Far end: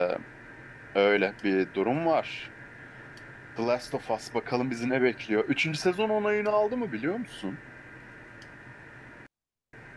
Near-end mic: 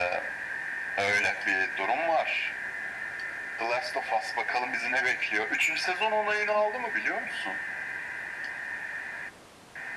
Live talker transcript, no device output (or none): none